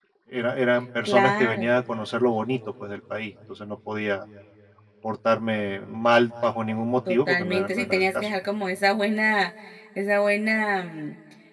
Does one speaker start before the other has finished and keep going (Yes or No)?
Yes